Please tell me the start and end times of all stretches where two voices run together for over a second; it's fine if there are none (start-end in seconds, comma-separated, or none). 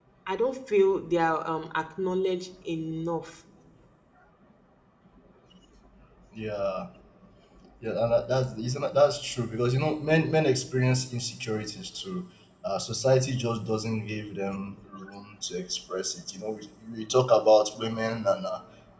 none